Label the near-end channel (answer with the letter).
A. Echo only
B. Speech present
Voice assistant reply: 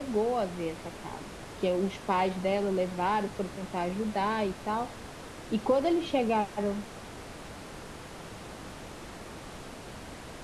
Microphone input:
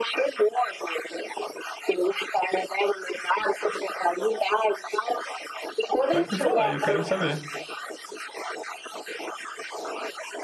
B